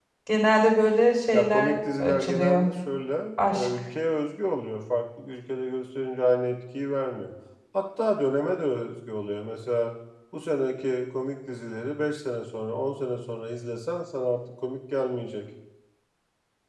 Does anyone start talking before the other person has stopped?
Yes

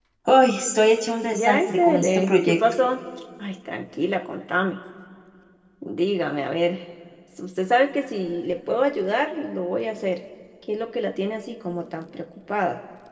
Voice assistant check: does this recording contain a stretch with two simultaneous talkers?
Yes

